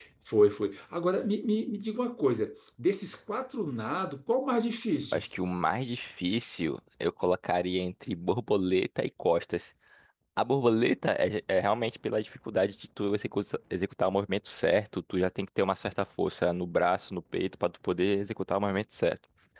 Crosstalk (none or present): none